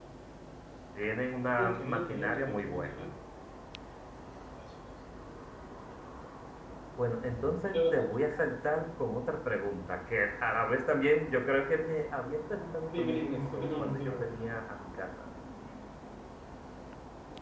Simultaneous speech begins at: 2 s

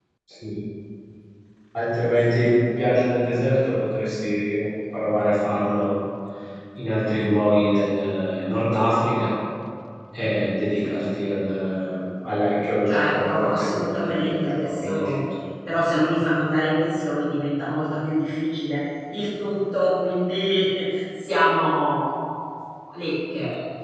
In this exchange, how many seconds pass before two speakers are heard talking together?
13 s

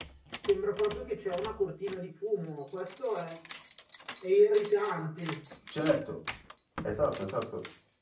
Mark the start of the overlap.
none

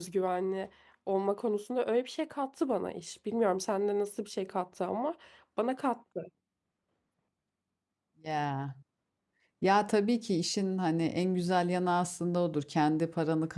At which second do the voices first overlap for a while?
none

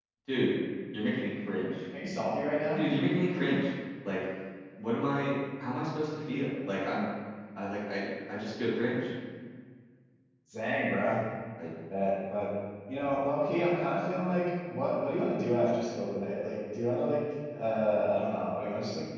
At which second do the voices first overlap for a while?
none

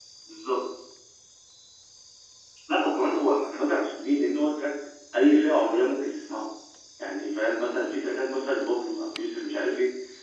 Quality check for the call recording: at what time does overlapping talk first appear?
none

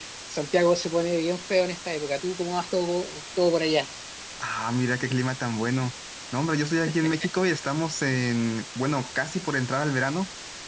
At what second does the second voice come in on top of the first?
none

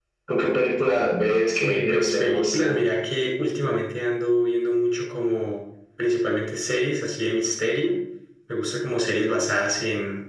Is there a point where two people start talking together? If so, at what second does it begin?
2 s

